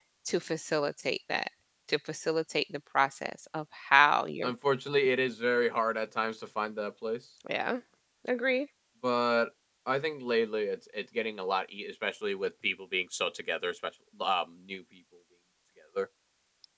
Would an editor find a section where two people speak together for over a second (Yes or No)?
No